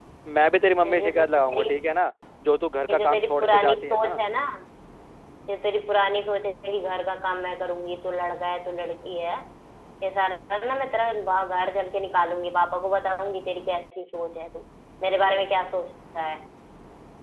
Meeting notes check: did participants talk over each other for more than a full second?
Yes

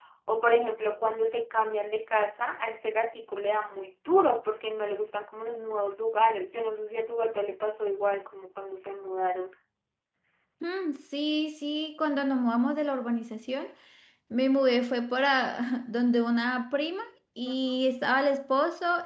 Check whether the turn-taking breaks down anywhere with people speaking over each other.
No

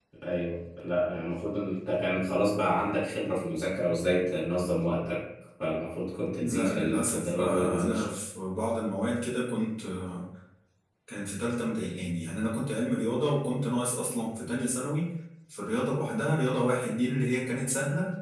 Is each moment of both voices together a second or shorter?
No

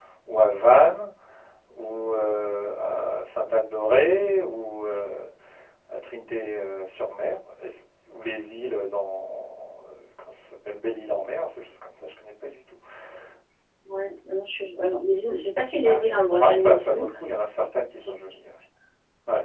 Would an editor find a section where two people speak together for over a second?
Yes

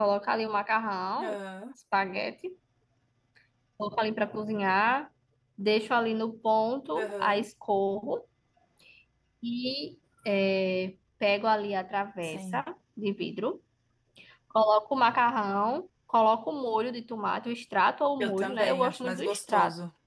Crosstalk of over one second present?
Yes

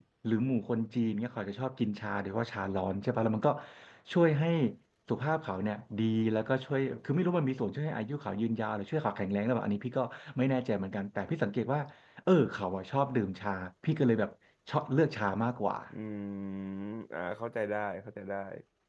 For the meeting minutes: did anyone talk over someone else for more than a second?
No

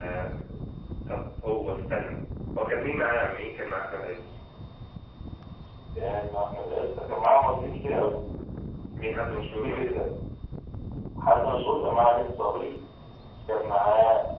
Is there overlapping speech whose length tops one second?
No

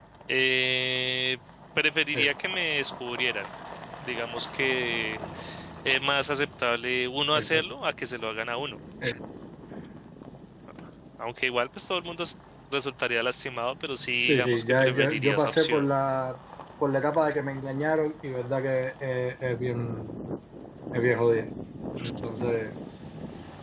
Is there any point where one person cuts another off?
Yes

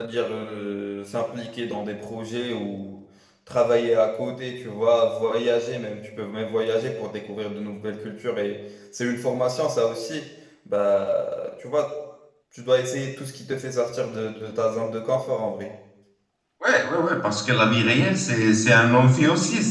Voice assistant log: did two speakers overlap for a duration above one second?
No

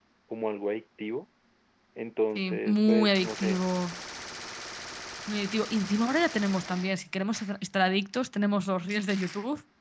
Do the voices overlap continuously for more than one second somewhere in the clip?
Yes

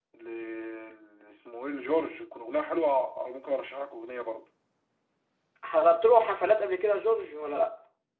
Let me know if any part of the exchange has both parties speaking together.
No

